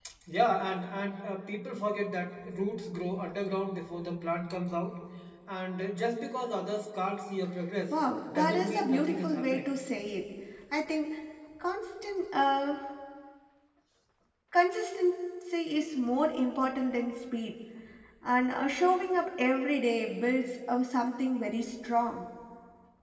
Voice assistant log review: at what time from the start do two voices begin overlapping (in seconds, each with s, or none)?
8.3 s